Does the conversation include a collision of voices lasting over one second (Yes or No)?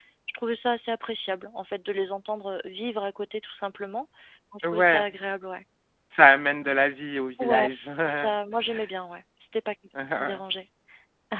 No